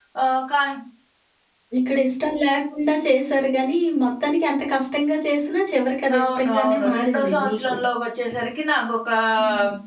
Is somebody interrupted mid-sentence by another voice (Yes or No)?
Yes